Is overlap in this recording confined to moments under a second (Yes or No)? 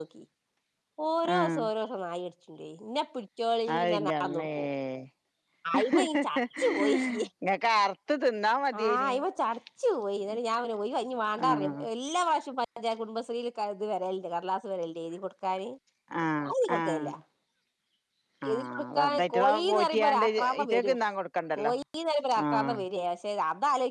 No